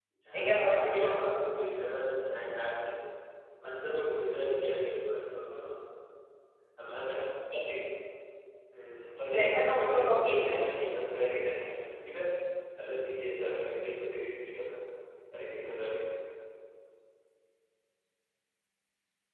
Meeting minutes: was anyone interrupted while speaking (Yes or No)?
Yes